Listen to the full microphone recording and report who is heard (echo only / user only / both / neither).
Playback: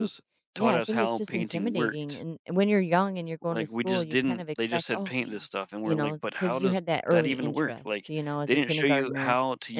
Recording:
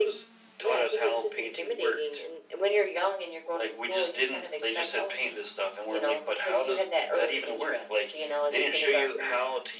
echo only